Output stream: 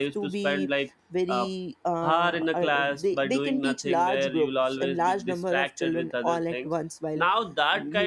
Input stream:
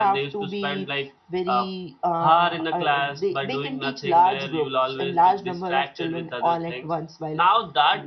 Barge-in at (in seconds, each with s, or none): none